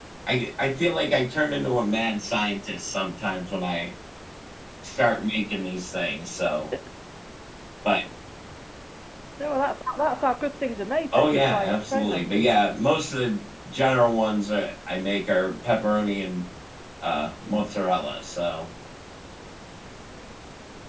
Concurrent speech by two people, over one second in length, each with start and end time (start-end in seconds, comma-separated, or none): 11.2-12.5